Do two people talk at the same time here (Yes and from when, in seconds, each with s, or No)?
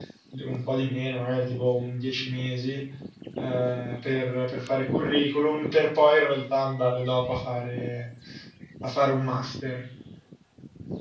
No